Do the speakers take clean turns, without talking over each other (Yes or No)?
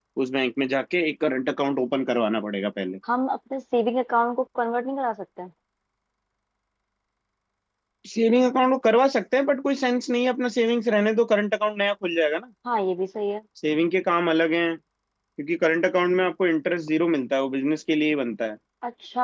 Yes